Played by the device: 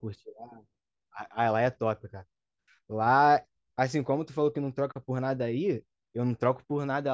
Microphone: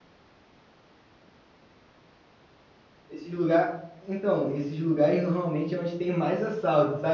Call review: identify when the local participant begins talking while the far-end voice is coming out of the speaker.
3.1 s

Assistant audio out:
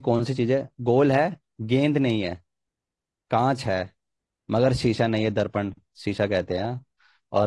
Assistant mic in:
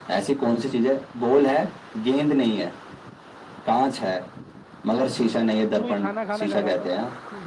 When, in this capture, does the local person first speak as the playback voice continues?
5.8 s

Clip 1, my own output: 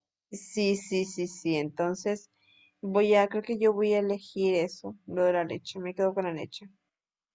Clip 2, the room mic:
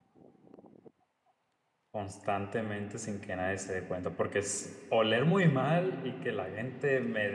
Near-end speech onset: 1.9 s

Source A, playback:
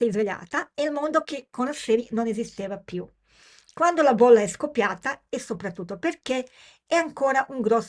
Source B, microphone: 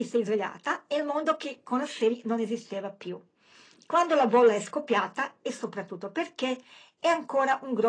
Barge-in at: none

